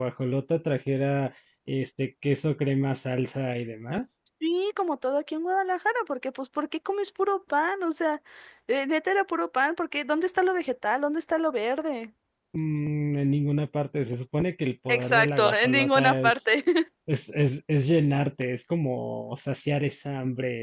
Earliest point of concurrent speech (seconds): 14.9 s

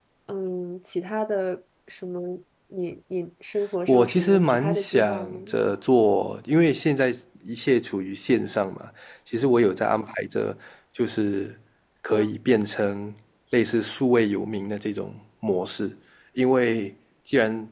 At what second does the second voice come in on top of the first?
3.9 s

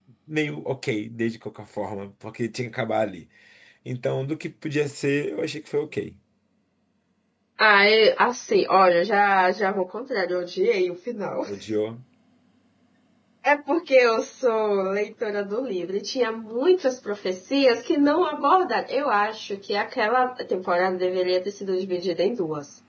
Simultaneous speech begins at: none

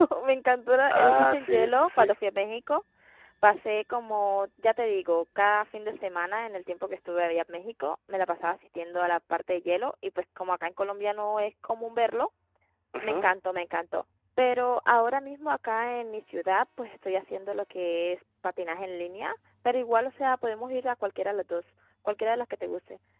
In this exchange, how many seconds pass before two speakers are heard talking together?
0.9 s

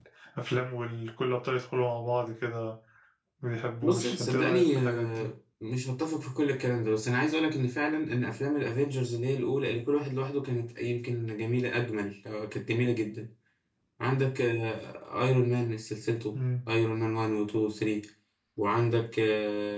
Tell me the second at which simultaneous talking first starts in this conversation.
3.8 s

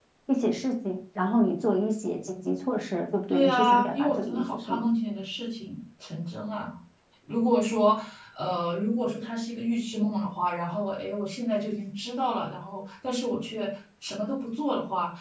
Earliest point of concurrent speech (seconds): 3.3 s

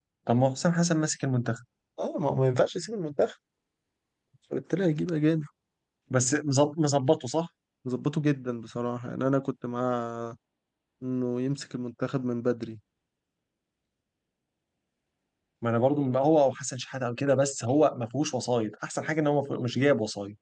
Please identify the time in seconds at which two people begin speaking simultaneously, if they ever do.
none

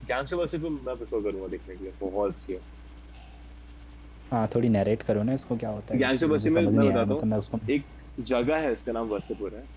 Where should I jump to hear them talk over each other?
5.9 s

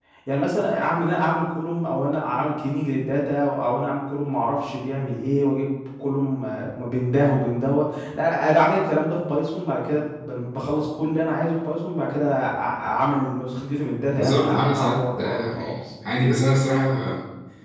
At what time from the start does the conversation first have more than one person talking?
14.2 s

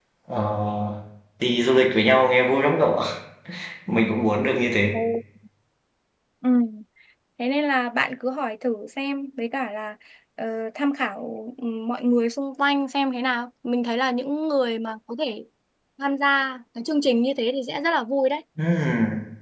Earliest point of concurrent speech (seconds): none

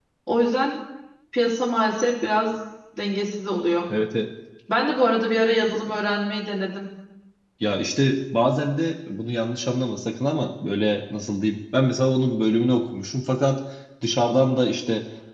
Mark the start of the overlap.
none

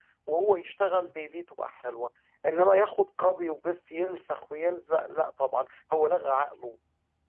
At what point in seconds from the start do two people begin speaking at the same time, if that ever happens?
none

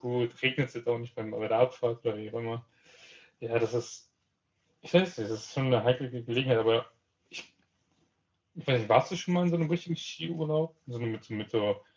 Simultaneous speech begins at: none

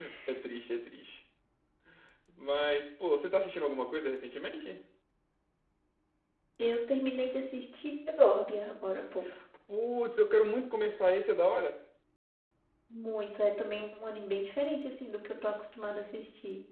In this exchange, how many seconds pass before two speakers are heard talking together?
none

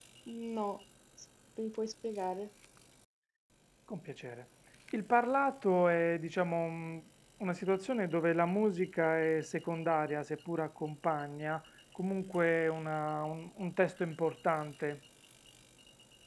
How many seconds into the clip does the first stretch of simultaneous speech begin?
none

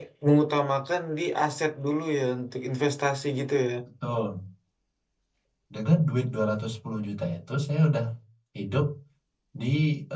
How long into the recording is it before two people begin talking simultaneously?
none

